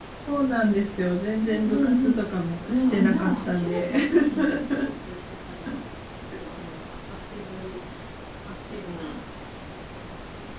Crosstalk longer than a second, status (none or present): present